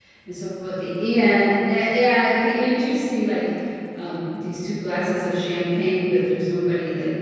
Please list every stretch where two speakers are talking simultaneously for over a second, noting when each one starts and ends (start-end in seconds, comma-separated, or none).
none